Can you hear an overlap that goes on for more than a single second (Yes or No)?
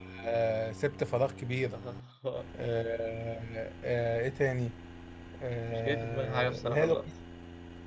Yes